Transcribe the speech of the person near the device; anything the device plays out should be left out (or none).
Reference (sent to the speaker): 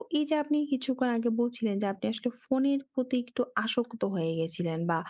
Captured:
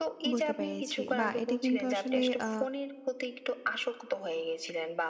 বুঝতে পেরেছি। বাহ! এটা কিন্তু আসলে আ